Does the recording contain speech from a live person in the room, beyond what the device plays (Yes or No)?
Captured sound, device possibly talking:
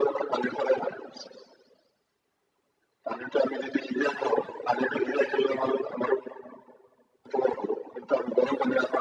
No